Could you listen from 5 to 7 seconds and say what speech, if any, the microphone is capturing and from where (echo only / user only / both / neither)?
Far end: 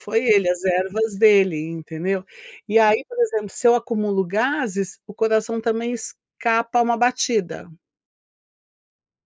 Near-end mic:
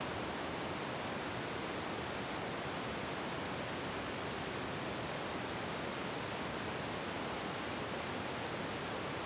neither